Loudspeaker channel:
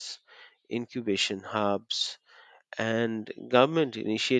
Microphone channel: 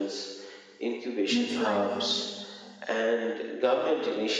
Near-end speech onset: 1.3 s

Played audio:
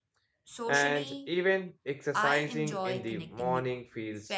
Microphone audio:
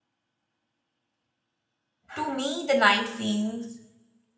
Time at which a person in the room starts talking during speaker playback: 2.1 s

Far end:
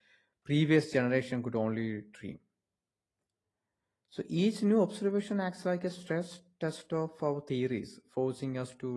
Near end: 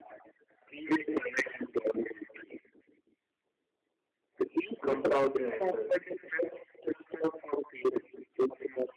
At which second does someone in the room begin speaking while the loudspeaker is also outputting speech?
4.8 s

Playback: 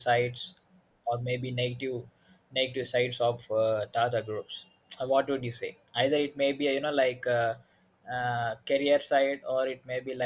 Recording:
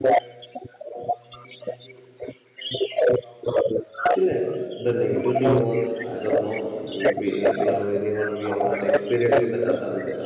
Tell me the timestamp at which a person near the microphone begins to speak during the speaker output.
4.0 s

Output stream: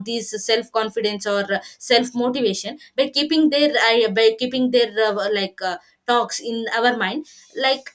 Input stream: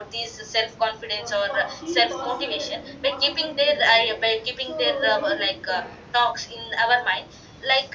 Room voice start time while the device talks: 1.2 s

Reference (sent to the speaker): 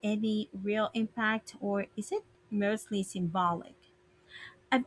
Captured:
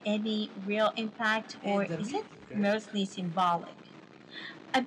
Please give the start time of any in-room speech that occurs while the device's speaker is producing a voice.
1.6 s

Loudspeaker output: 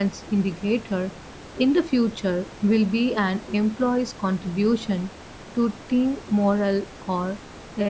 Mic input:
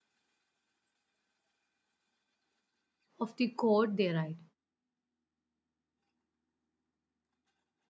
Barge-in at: 3.2 s

